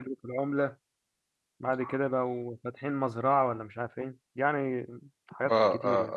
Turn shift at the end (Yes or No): Yes